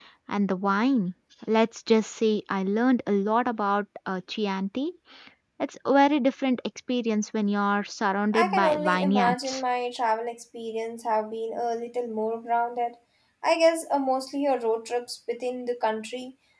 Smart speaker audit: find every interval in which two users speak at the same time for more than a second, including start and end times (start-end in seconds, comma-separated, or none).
8.3-9.6